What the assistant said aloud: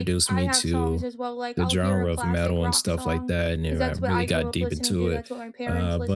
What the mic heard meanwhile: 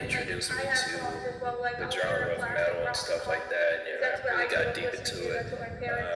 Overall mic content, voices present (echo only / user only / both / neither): echo only